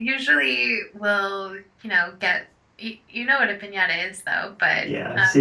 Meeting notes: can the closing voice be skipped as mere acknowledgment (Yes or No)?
No